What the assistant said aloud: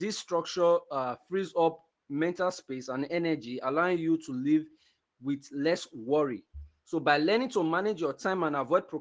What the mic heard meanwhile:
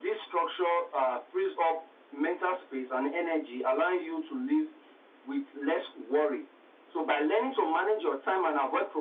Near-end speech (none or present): none